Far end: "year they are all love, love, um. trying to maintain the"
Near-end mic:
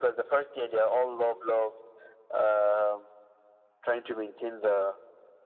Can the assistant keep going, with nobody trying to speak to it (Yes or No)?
Yes